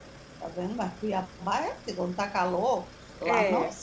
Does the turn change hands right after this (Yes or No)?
No